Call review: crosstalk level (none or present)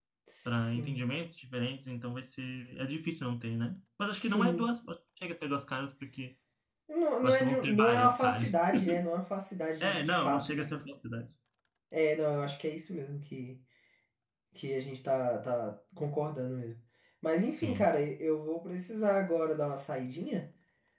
present